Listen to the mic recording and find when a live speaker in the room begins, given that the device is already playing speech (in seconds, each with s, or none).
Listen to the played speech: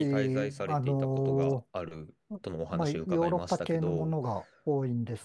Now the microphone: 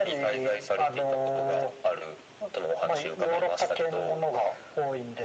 none